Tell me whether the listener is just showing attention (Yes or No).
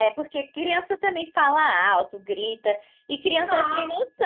Yes